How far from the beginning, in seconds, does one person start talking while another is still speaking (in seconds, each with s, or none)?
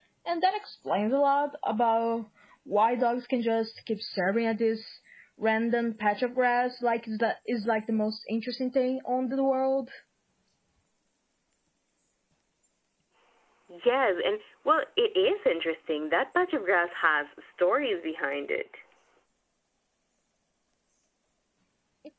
none